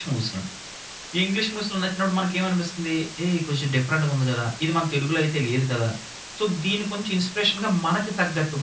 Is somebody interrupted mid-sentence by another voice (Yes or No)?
No